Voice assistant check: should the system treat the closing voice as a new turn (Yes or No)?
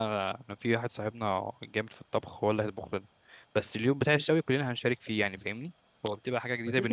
Yes